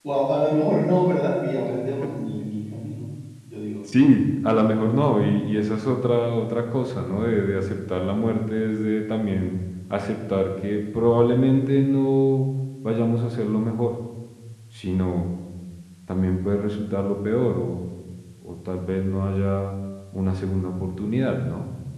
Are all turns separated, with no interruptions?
Yes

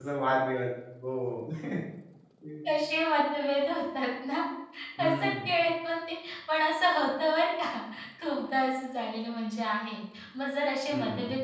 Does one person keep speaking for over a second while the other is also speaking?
No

